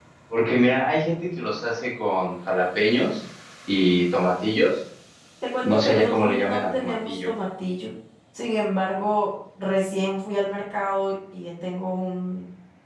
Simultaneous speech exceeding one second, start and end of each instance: 5.6-7.3

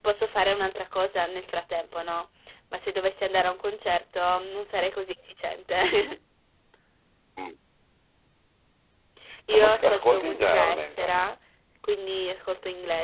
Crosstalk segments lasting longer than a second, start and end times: 9.5-11.1

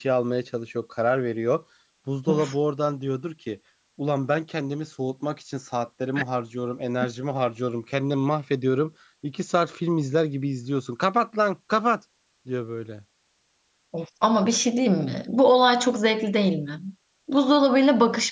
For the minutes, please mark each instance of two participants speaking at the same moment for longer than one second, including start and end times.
none

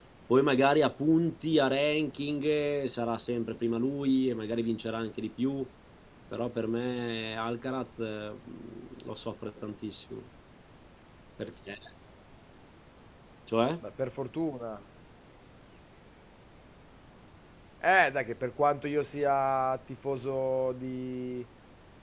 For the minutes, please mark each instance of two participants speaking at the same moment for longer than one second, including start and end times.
none

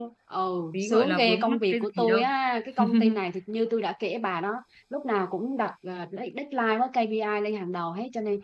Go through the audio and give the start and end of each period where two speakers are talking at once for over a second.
0.7-2.2

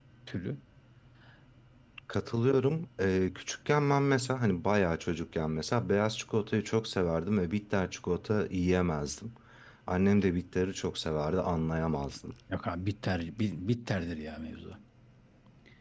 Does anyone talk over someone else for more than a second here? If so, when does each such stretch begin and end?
none

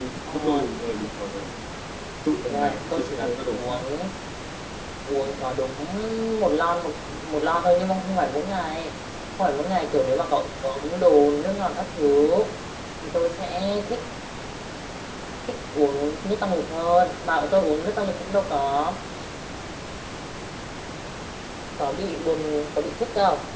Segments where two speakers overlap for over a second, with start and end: 2.5-3.8

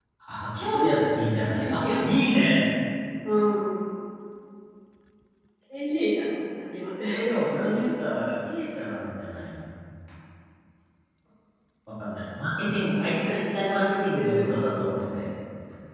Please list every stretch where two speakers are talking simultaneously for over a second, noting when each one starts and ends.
13.0-14.8

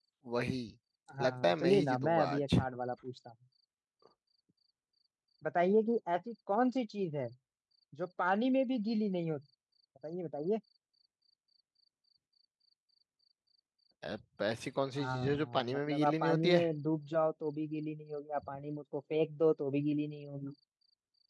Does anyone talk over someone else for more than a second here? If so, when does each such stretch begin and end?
1.2-2.4, 15.0-16.6

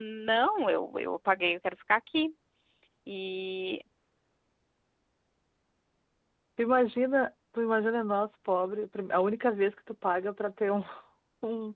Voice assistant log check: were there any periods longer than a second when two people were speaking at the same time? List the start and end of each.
none

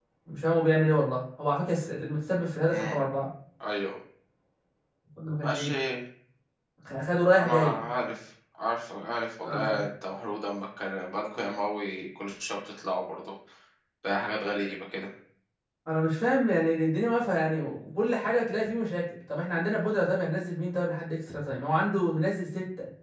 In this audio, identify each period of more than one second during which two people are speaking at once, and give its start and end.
none

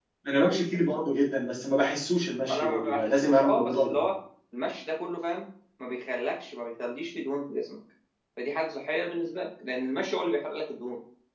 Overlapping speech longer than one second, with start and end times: 2.5-4.1

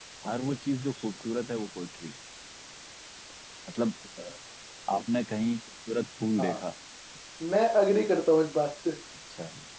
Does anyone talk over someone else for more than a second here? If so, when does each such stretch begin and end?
none

